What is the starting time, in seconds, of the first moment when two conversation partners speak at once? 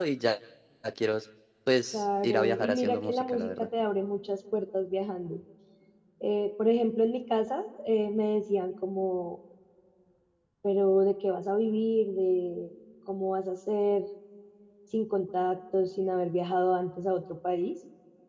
2 s

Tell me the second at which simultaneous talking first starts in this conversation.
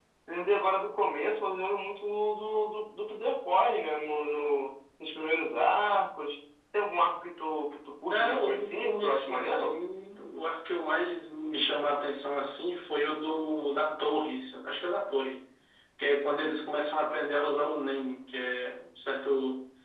8 s

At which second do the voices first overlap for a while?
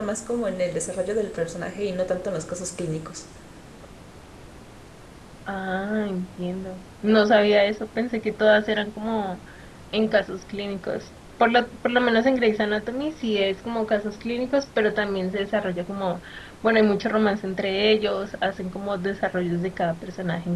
none

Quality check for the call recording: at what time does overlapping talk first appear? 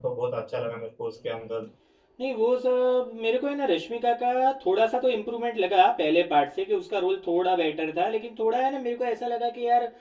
none

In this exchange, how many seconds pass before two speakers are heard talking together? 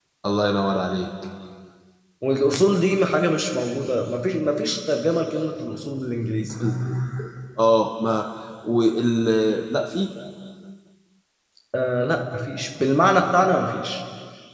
none

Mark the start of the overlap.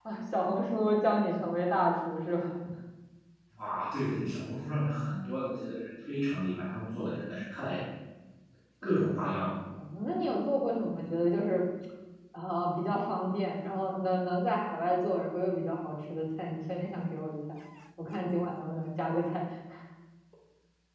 none

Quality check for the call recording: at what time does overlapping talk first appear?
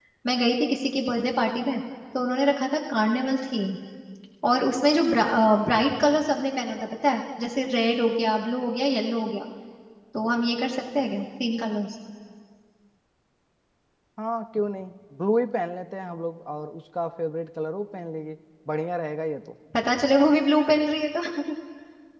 none

